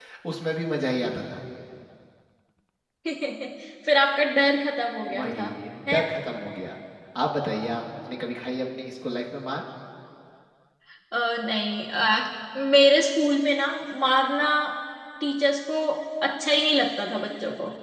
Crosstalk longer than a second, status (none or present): none